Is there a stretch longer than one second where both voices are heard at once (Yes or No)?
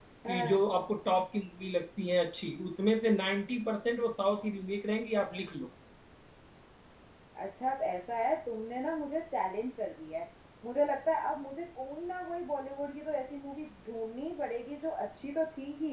No